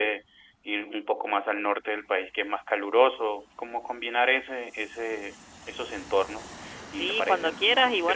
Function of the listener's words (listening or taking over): taking over